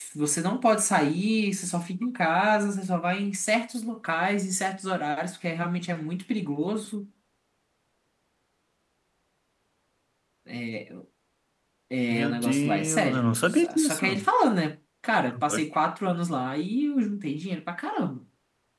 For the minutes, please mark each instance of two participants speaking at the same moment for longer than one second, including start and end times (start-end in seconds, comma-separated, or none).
12.1-14.1